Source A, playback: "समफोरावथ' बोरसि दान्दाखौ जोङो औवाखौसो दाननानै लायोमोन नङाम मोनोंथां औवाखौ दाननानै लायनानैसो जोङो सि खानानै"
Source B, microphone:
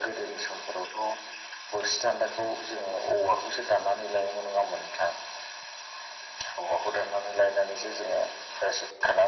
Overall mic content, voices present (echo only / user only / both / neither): echo only